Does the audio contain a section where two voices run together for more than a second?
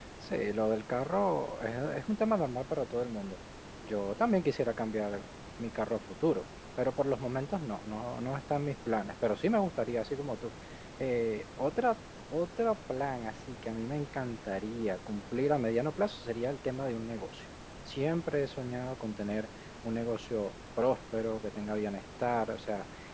No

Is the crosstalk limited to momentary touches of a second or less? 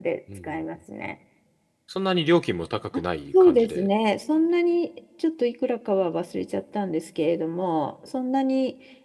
Yes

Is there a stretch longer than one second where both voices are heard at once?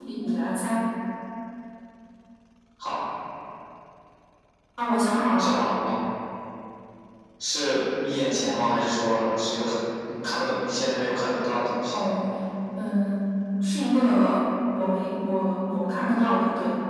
No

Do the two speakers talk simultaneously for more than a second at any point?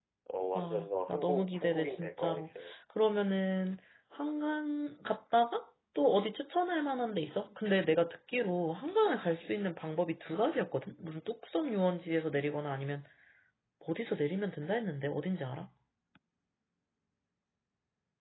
Yes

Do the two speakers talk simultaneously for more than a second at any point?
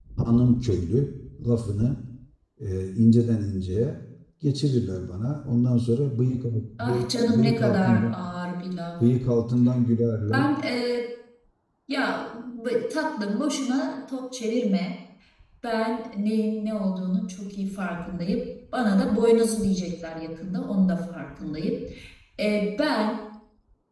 Yes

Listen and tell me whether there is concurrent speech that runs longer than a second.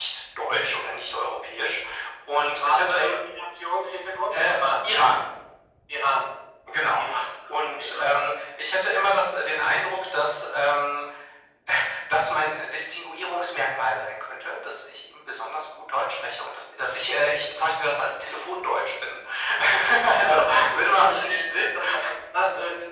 Yes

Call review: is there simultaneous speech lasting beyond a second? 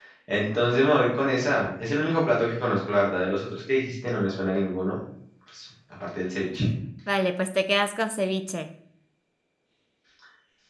No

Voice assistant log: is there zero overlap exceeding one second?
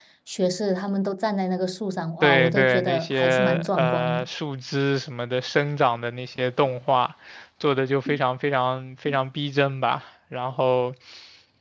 No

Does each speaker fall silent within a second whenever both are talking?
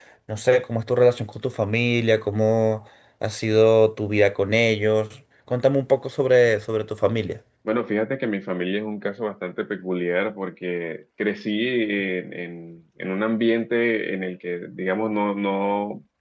Yes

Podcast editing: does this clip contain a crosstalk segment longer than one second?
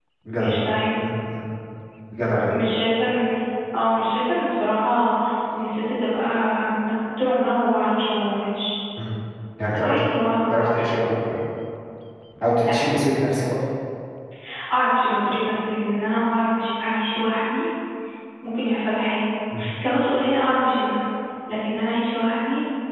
No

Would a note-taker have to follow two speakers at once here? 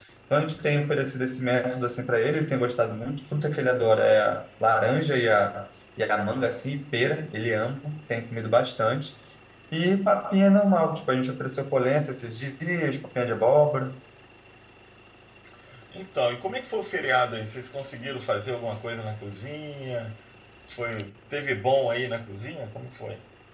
No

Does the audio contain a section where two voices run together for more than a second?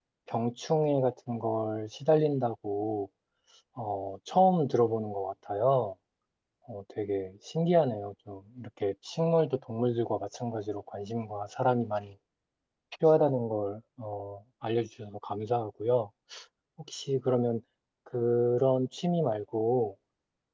No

